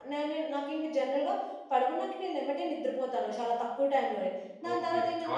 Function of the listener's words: taking over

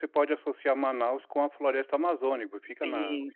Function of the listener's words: taking over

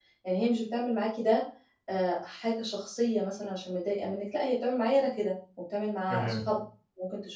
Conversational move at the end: listening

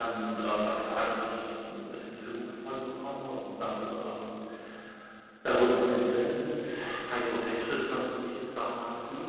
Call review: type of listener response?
listening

